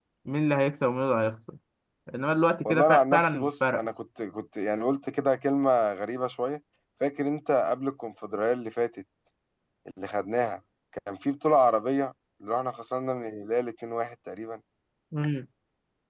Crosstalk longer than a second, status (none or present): present